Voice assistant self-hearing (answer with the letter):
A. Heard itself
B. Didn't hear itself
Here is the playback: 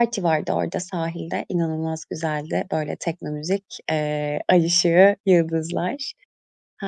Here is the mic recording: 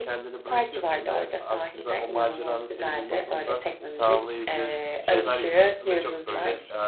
A